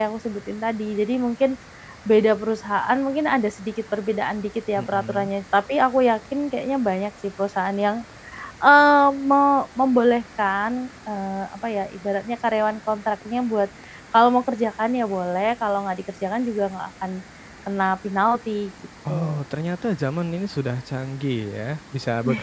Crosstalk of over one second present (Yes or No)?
No